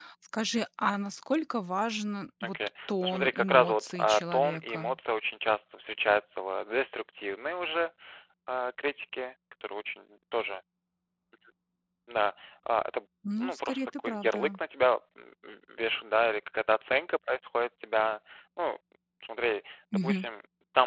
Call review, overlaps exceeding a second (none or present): present